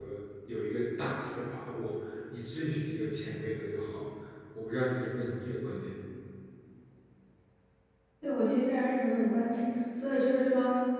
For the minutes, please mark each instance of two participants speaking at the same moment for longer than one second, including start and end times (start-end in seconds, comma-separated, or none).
none